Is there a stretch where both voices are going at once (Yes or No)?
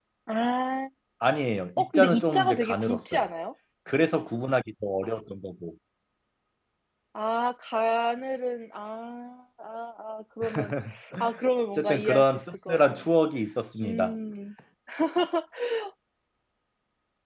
Yes